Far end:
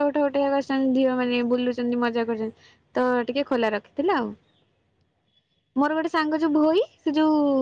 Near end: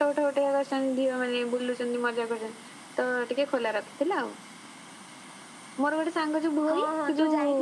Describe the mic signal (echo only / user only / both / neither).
both